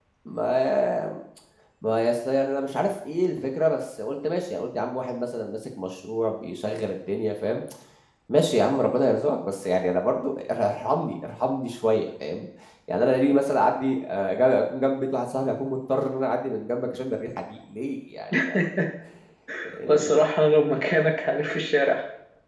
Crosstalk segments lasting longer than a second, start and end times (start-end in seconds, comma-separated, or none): none